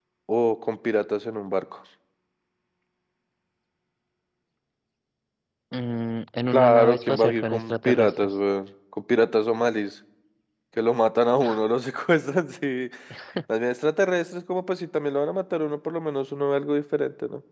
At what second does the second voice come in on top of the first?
7 s

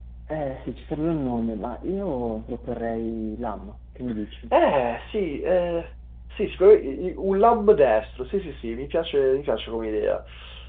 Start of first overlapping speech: none

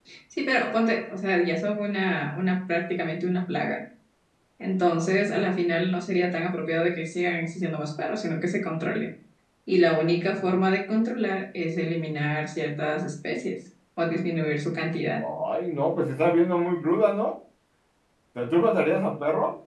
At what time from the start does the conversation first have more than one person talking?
none

